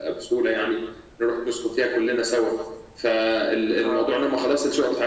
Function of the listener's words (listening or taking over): listening